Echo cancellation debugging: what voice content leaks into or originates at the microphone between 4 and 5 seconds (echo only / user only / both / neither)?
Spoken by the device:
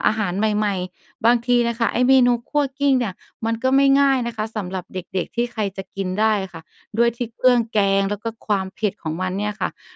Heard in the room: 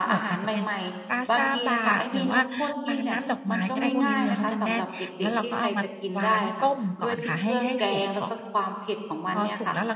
both